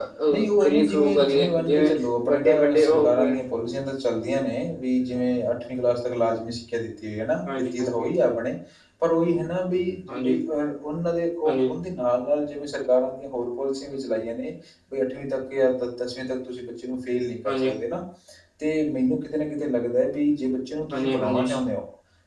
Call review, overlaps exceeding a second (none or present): present